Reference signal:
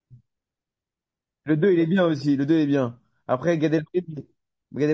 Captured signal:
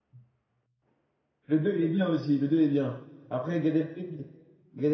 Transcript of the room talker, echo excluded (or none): none